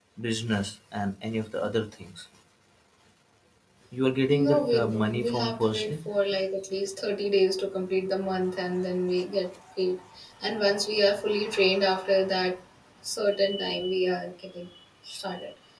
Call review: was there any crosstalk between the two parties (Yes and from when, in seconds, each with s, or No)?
Yes, from 4.3 s